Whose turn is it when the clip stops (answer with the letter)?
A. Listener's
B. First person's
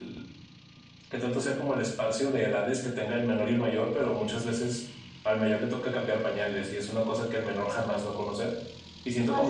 B